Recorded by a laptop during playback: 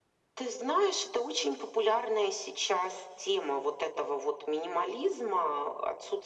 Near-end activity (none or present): none